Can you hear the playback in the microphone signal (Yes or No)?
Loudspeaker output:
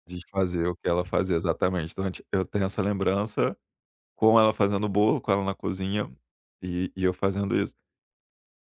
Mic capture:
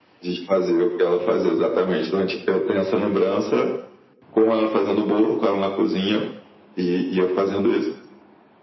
Yes